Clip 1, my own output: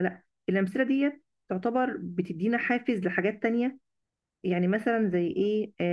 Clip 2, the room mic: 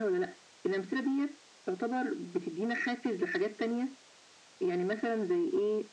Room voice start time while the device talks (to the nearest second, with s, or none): none